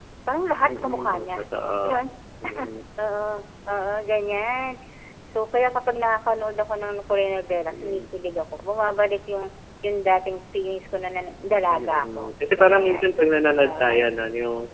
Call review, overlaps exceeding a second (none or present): present